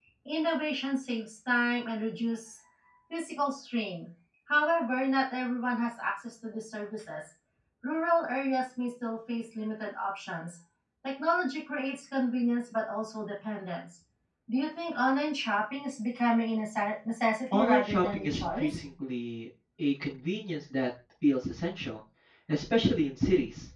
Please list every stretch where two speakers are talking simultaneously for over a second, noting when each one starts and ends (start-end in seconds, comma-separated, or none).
17.5-18.8